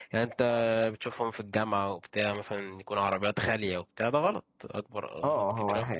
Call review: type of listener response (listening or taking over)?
taking over